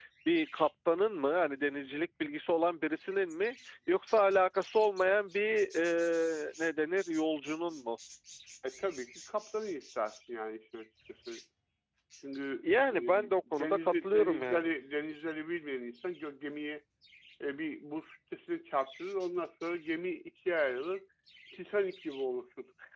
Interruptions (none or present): present